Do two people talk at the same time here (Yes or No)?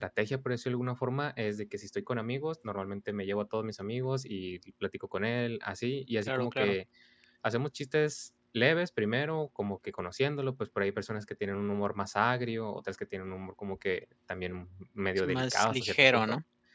Yes